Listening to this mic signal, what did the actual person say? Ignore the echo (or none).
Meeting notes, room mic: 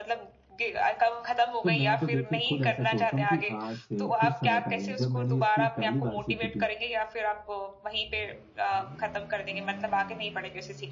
तो मैं तो देखिए खुद ऐसा सोचता हूँ कि आज से कुछ समय पहले जब मैंने ये स्किल पहली बार सीखी थी,